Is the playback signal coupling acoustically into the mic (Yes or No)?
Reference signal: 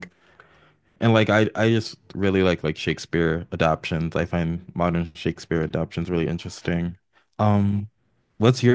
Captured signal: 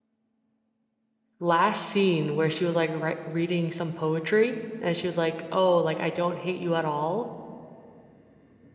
No